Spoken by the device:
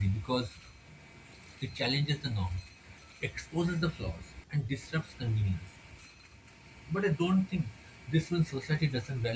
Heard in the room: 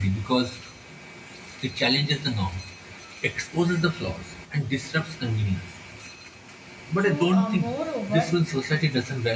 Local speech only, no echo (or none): so uh, moreover